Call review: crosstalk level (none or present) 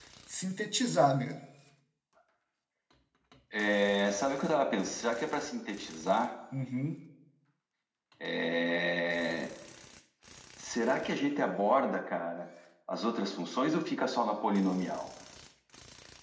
none